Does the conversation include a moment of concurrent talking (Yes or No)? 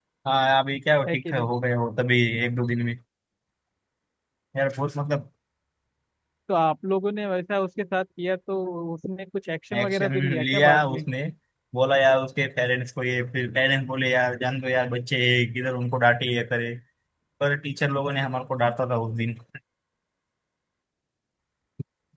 Yes